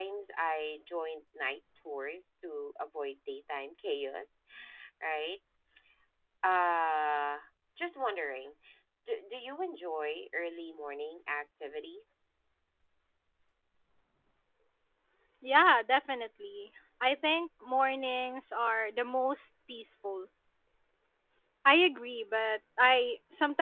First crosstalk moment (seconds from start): none

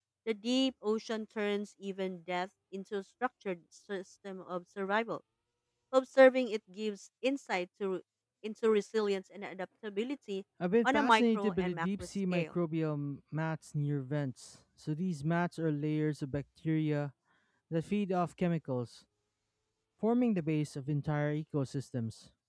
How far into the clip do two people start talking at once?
10.8 s

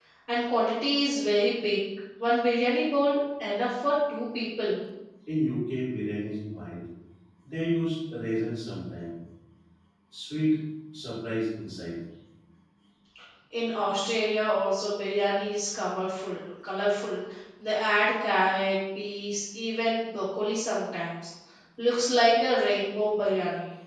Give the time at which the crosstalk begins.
none

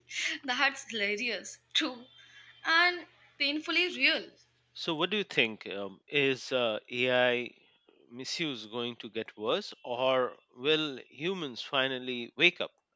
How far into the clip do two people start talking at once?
none

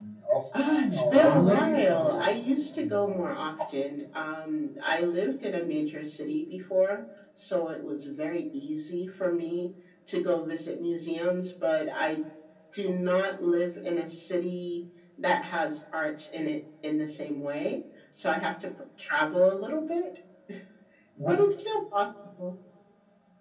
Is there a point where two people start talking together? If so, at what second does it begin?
0.6 s

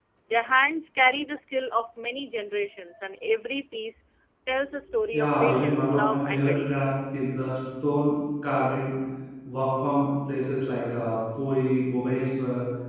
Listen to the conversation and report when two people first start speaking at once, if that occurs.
5.1 s

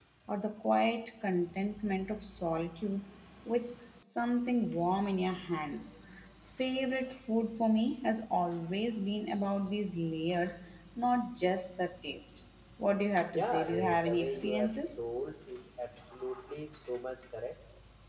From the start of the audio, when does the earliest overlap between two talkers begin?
13.3 s

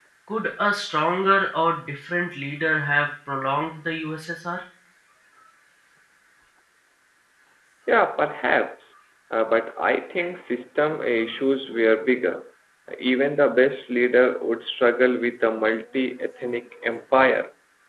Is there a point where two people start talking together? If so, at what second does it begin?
none

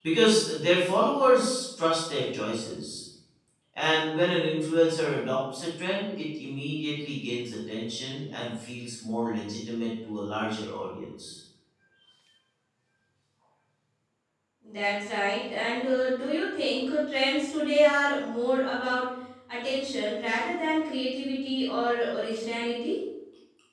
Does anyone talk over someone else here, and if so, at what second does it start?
none

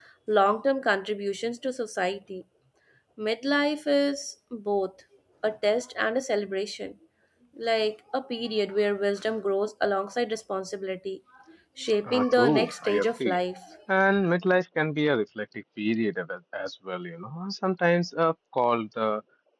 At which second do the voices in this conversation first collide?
12.1 s

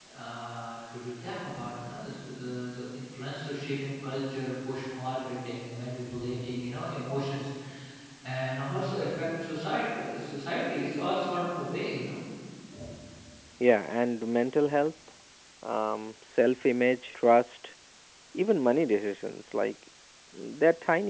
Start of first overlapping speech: none

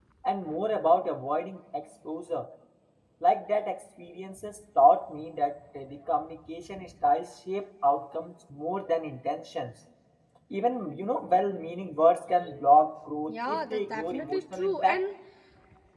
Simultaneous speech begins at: 13.3 s

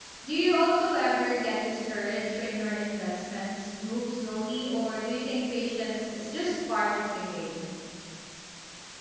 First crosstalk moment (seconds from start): none

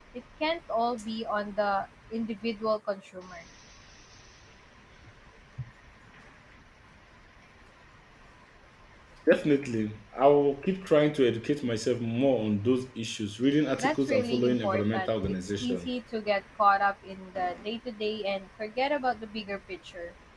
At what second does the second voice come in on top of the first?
13.8 s

